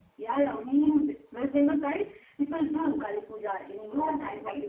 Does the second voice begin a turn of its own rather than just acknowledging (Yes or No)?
Yes